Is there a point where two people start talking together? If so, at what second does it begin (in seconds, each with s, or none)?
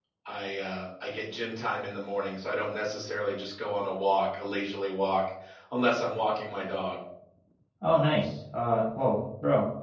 none